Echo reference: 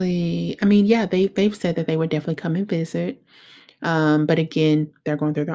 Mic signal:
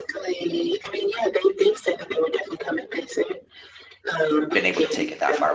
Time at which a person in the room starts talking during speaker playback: 5 s

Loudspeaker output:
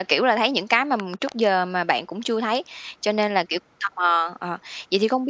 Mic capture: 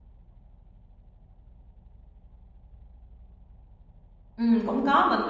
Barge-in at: 4 s

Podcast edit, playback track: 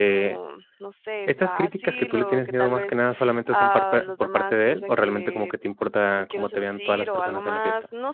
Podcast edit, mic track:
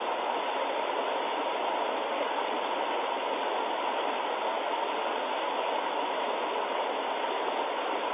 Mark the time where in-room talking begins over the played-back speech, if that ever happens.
none

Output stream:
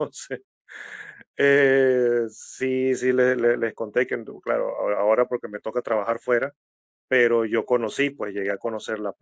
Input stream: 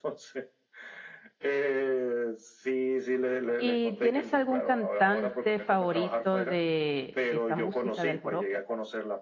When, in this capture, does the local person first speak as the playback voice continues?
4 s

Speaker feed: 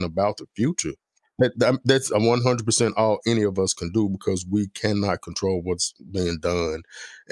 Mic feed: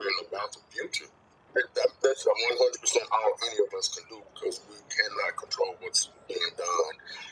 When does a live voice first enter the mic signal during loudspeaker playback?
none

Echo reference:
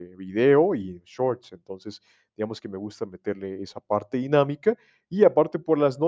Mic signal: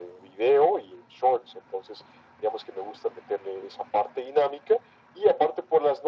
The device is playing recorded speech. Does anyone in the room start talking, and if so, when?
none

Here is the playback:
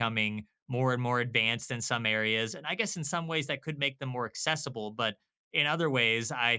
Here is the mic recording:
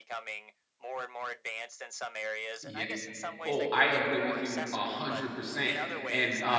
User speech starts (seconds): 3 s

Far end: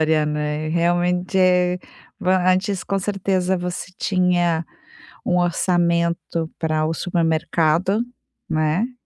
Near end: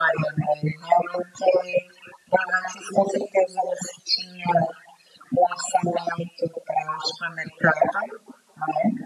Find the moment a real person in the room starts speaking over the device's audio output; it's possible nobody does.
none

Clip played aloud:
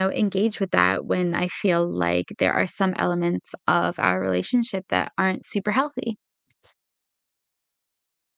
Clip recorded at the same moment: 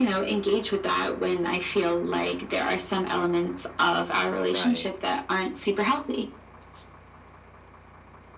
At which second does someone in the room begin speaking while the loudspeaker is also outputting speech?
4 s

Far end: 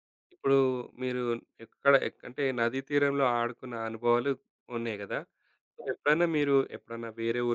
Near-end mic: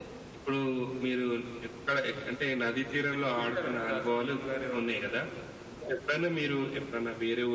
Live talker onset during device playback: 3 s

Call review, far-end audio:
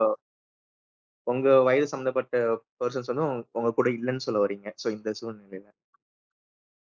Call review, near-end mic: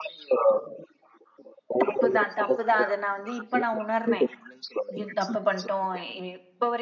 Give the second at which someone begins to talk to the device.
2 s

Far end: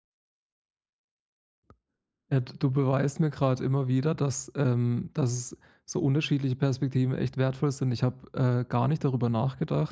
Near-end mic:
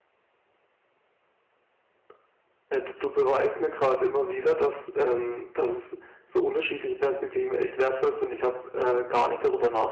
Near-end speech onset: none

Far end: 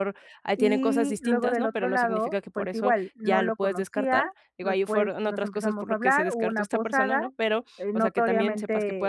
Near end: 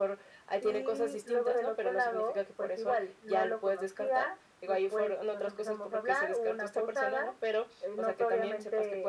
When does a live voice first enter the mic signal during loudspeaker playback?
none

